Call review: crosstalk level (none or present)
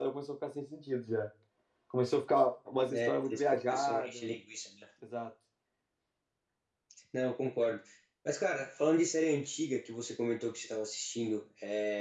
present